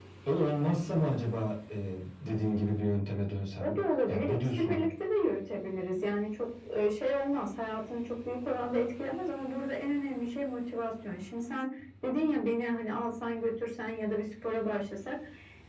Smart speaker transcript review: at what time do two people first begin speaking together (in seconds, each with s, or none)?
3.6 s